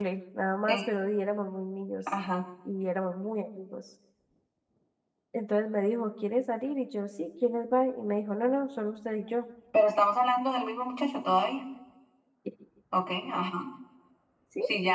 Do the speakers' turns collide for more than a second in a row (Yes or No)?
No